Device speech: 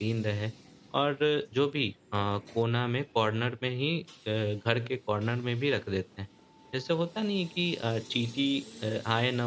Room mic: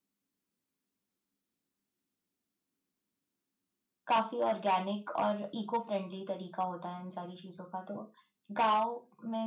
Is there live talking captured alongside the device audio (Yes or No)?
Yes